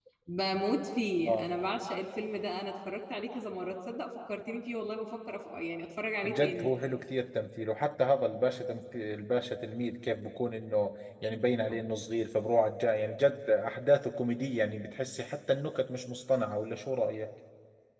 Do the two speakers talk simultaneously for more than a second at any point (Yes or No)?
No